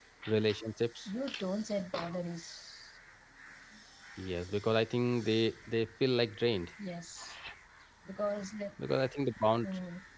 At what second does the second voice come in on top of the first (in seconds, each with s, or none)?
none